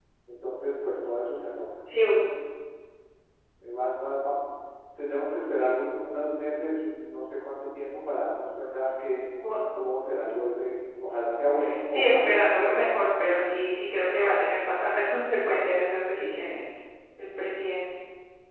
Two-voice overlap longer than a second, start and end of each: 11.9-13.1

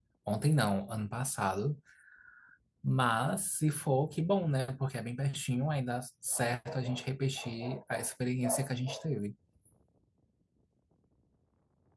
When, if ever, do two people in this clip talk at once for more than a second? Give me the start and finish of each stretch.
none

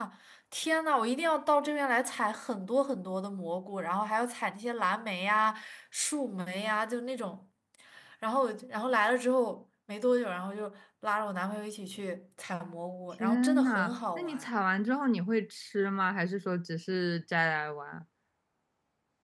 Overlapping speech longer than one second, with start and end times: 13.2-14.5

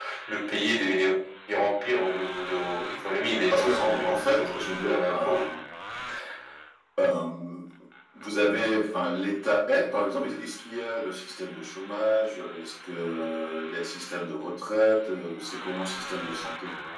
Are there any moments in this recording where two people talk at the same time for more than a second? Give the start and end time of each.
3.5-5.4

